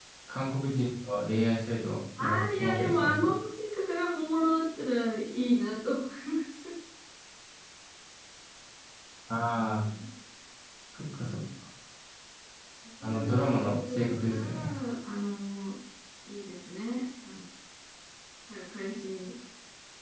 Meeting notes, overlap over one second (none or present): present